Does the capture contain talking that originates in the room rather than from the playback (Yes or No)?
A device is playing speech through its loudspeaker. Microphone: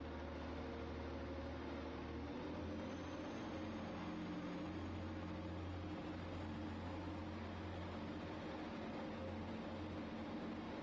No